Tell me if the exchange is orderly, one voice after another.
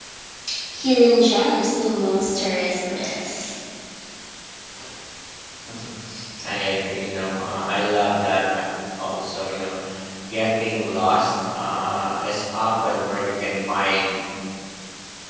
Yes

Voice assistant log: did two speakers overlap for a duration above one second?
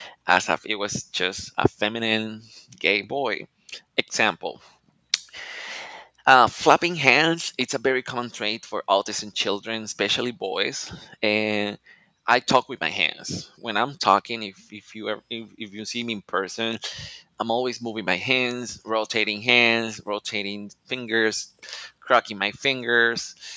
No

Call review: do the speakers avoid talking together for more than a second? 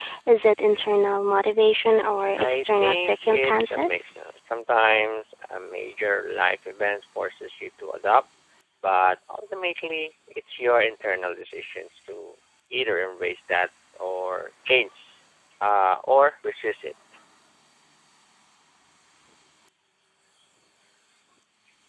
No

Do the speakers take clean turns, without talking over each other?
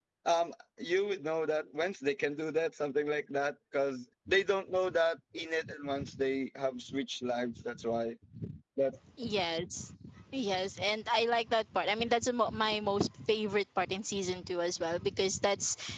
Yes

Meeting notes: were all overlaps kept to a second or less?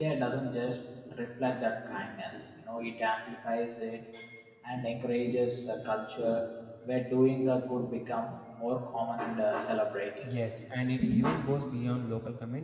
Yes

